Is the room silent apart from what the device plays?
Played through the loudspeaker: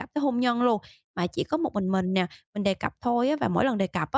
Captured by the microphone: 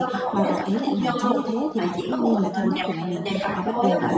No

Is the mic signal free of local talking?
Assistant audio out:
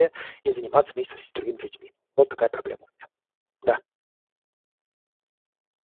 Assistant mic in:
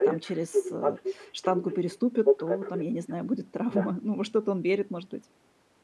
No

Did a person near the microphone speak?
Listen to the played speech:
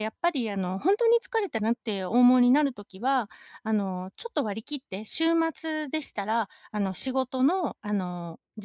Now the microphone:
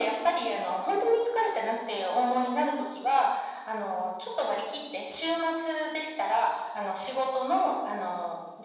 No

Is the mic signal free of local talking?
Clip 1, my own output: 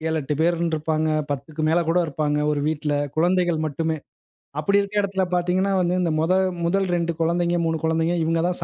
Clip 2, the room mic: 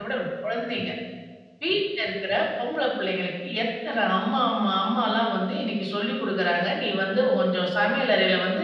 No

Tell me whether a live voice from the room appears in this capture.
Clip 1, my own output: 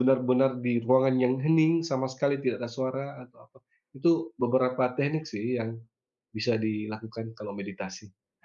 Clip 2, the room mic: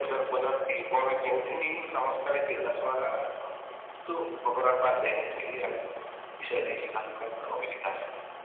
No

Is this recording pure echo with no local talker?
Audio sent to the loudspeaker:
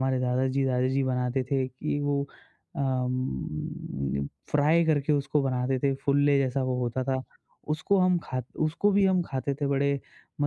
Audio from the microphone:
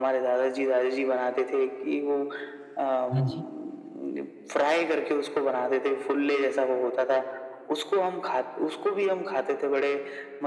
No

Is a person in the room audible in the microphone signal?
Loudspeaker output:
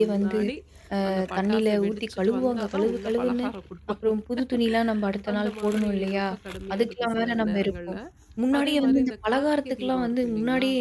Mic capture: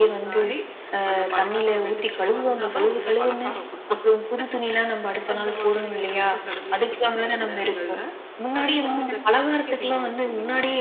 Yes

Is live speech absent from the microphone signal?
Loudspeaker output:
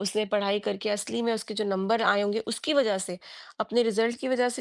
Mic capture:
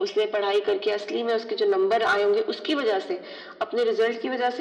Yes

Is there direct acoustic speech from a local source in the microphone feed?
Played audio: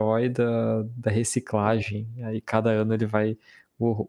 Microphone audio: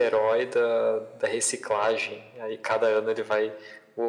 No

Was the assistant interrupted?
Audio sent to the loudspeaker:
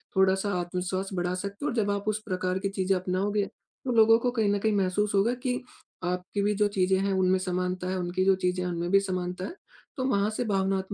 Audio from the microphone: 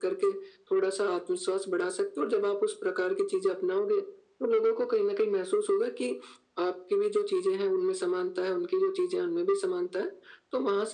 No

